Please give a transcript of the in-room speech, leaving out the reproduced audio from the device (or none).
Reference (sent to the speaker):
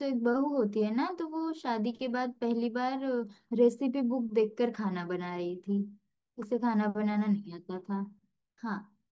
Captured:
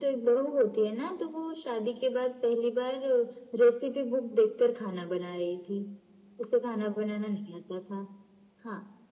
none